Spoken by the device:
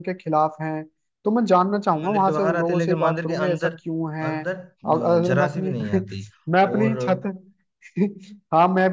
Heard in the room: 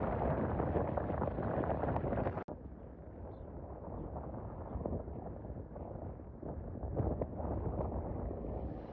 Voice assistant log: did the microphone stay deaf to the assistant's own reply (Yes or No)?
Yes